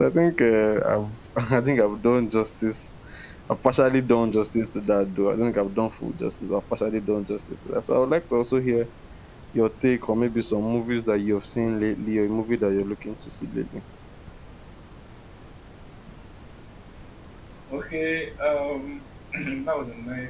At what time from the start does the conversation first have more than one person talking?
none

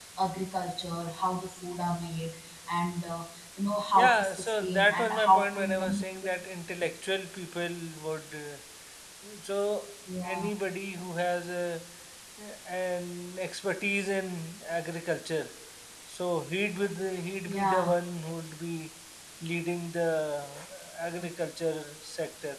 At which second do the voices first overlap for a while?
4.0 s

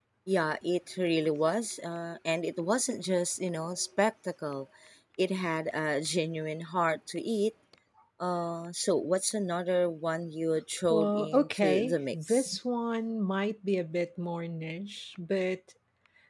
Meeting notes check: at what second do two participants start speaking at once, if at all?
10.9 s

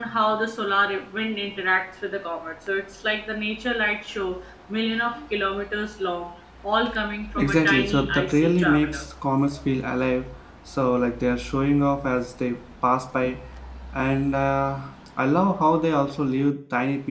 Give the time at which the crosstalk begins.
7.3 s

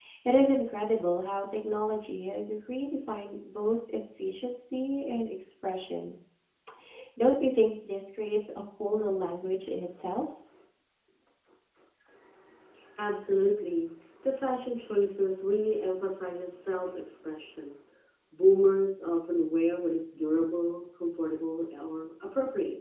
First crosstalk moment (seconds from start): none

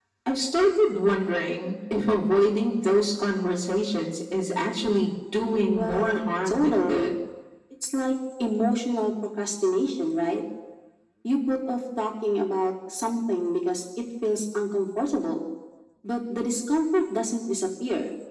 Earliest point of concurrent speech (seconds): 5.7 s

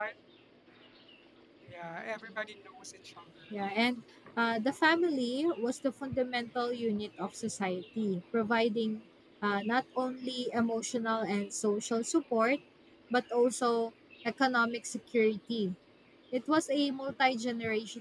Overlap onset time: none

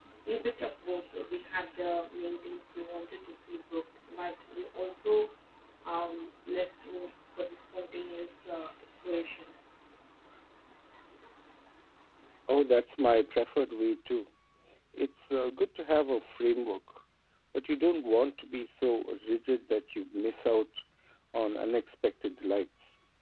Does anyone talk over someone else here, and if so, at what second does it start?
none

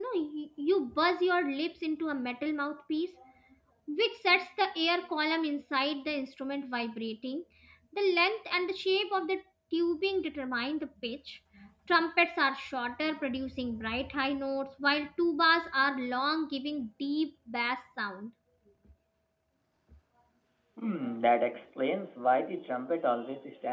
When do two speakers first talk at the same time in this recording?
none

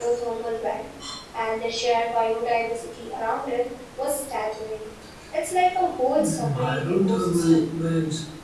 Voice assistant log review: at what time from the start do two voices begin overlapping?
6.2 s

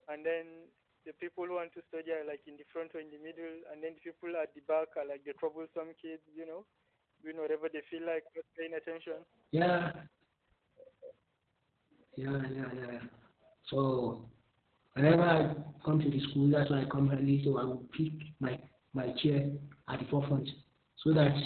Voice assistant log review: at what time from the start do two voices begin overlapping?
none

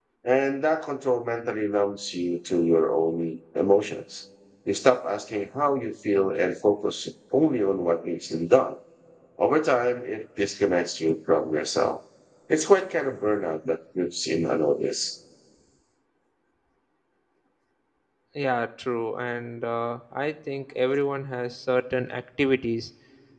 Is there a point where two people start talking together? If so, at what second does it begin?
none

